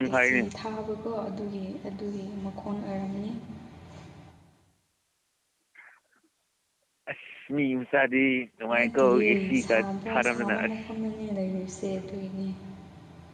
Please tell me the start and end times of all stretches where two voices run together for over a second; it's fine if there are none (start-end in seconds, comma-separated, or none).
8.8-10.8